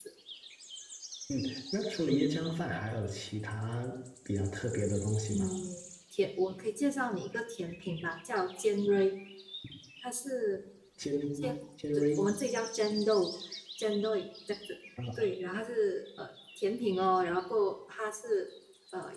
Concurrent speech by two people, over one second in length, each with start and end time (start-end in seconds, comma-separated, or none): none